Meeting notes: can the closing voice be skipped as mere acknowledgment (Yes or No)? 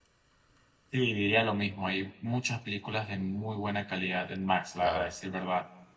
Yes